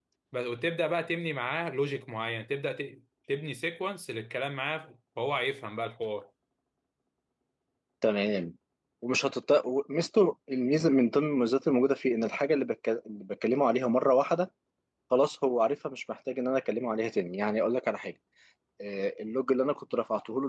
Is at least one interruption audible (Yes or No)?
No